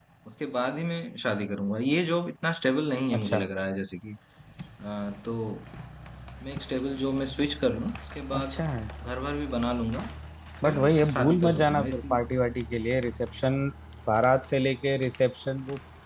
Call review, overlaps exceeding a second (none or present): present